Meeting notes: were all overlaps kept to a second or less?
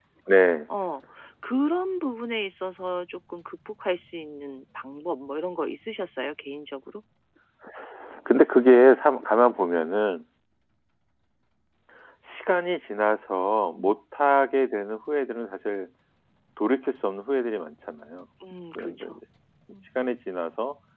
Yes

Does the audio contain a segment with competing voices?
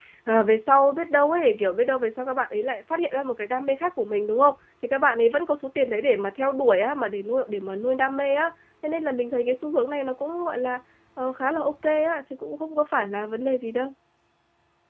No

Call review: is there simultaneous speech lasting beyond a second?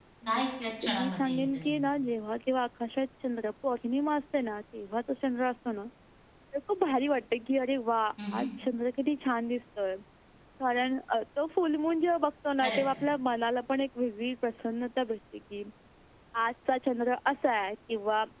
Yes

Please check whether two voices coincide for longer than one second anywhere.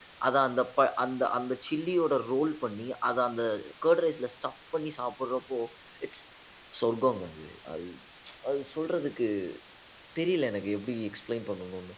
No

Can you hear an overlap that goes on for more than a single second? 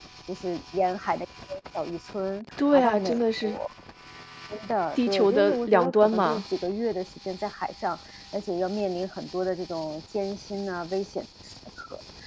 Yes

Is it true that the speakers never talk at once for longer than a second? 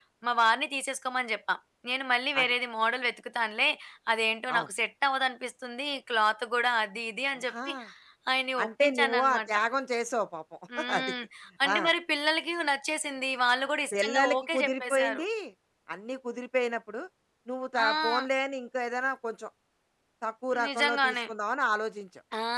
No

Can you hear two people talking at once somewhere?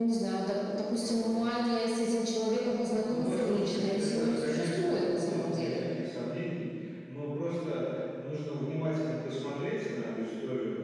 Yes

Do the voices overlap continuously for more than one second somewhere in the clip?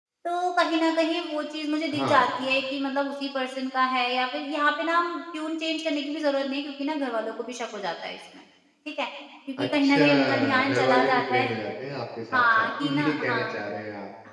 Yes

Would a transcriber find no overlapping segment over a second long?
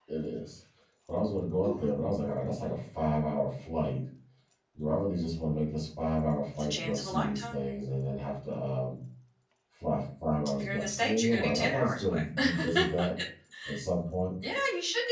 No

